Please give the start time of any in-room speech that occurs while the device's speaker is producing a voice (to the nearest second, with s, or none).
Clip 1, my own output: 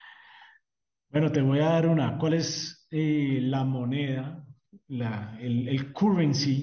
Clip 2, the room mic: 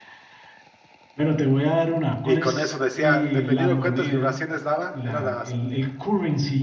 2 s